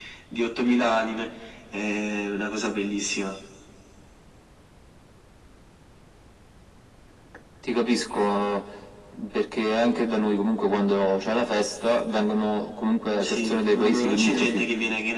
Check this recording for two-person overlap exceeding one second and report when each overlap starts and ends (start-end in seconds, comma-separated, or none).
13.2-14.6